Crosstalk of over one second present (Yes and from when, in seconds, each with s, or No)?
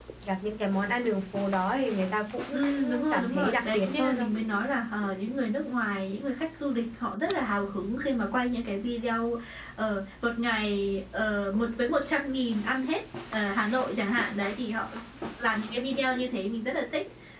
Yes, from 2.5 s